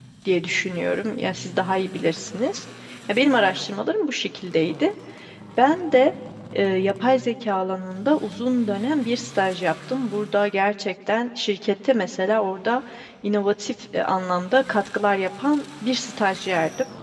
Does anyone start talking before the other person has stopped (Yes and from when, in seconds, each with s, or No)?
No